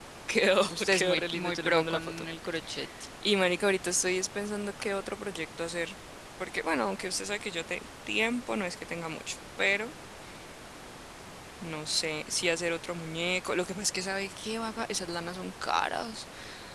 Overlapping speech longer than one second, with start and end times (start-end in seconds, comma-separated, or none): 0.7-2.2